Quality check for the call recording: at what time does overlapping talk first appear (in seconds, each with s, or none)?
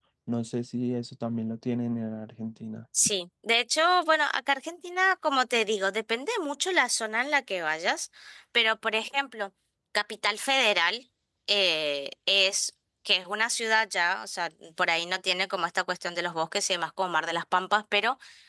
none